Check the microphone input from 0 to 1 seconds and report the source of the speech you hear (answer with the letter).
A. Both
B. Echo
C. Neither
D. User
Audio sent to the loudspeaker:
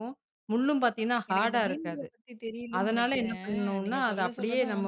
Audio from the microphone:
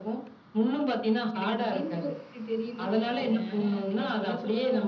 B